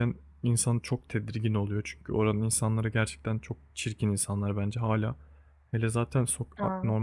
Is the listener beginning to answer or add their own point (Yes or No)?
No